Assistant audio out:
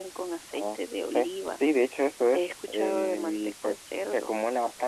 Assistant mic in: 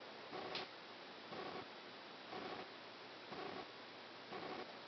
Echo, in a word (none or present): none